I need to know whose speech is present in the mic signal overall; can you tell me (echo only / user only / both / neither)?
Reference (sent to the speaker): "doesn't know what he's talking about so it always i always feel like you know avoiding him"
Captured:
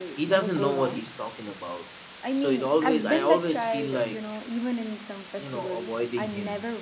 both